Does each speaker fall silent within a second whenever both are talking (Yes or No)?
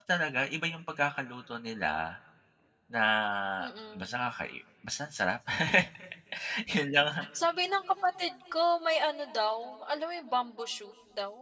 Yes